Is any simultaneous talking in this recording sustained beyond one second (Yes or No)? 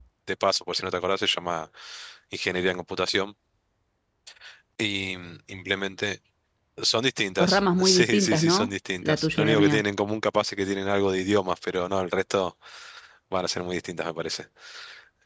Yes